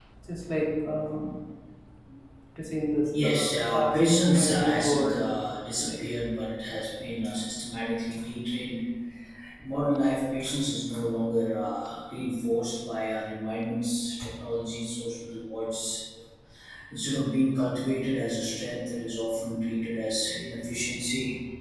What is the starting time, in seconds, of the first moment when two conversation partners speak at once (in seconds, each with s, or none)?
3.1 s